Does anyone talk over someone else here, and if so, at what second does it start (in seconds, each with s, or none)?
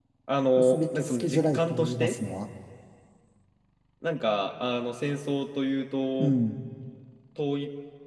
0.6 s